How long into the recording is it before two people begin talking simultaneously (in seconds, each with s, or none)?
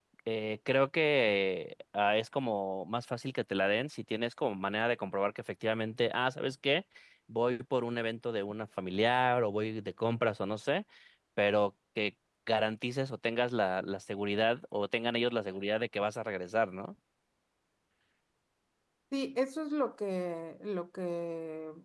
none